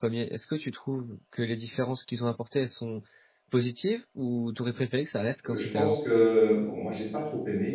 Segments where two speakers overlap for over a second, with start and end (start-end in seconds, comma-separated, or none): none